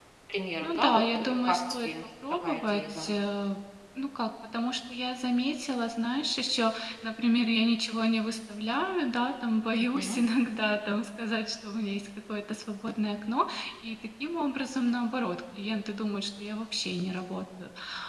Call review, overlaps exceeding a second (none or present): present